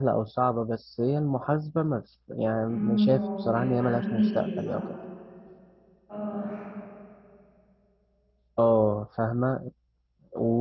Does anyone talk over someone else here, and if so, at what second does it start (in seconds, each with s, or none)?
2.6 s